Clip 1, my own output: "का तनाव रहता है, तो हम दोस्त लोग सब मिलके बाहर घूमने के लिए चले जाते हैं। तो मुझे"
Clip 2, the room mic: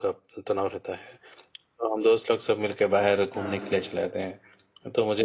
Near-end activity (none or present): present